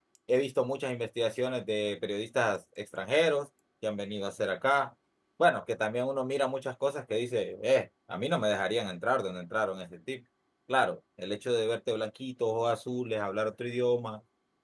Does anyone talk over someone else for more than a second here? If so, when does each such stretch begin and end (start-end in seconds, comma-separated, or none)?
none